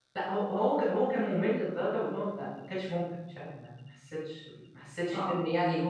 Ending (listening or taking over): listening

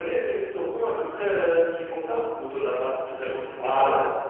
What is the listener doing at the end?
taking over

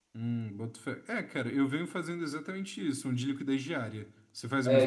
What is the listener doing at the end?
taking over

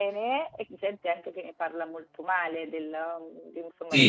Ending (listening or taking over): taking over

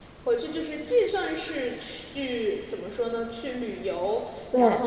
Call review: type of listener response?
listening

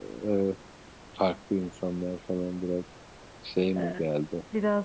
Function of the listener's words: taking over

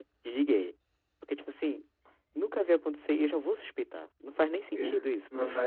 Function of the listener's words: taking over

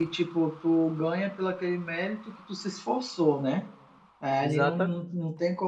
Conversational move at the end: listening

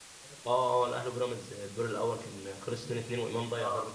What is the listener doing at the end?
taking over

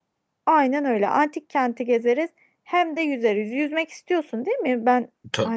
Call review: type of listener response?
taking over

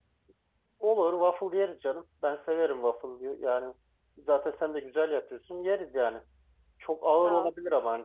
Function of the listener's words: listening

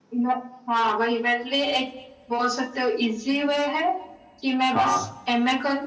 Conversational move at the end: listening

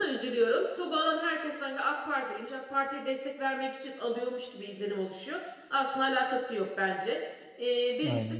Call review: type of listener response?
listening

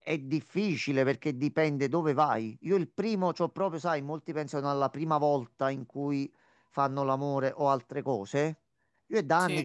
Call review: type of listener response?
listening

